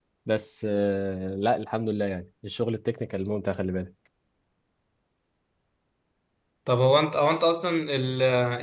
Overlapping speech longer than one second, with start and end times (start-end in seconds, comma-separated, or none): none